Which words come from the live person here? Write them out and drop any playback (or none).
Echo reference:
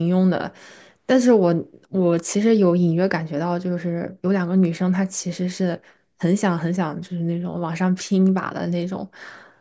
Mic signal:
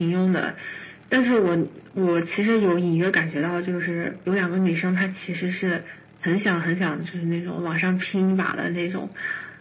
none